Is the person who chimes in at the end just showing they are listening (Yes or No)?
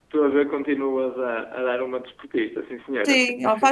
No